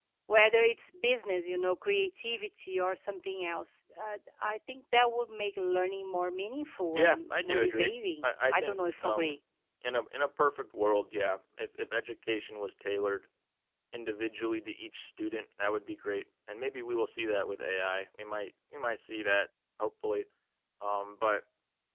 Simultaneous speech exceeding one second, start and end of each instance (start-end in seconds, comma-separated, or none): 7.0-9.4